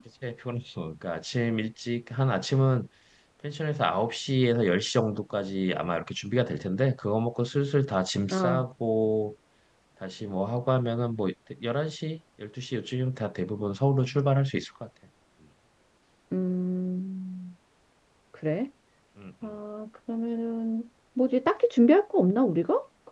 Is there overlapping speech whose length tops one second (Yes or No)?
No